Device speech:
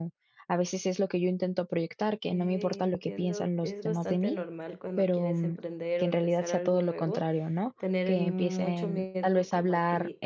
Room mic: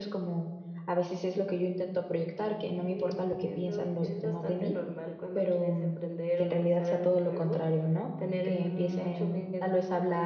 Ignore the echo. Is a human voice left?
No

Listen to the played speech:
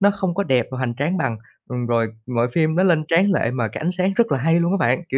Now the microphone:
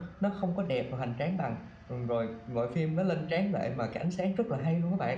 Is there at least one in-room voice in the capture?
No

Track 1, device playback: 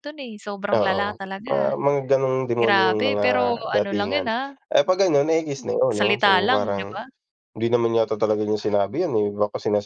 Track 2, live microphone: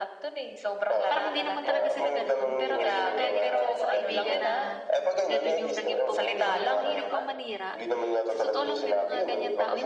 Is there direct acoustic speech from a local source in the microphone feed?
Yes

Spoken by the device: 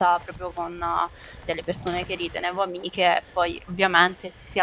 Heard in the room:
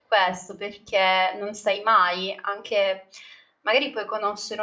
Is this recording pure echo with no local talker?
No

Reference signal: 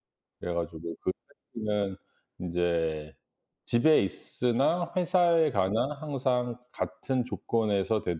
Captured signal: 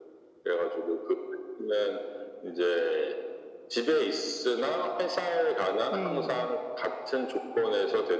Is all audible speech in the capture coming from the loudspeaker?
No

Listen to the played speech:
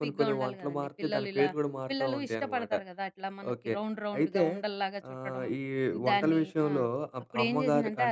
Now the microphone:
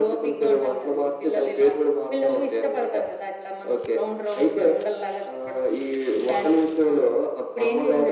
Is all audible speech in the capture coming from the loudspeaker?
Yes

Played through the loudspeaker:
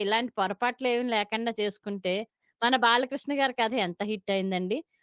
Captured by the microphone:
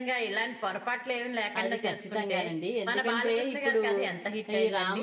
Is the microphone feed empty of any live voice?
No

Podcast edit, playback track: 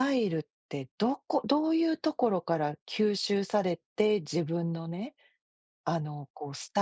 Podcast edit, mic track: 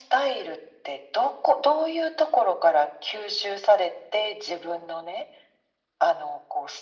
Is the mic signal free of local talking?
Yes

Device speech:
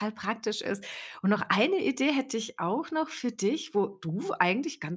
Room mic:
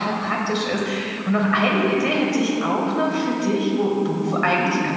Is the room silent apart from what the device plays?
Yes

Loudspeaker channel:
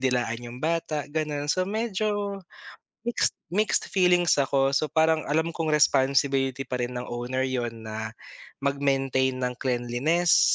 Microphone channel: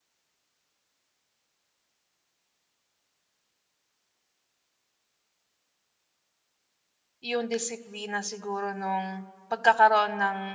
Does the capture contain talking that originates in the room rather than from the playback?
Yes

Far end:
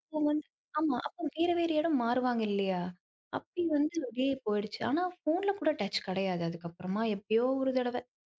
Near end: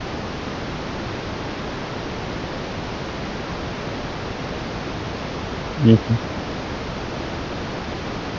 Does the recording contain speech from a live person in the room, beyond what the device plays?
Yes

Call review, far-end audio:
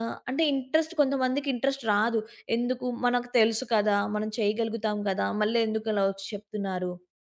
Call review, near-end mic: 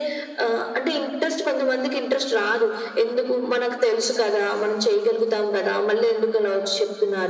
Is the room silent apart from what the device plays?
Yes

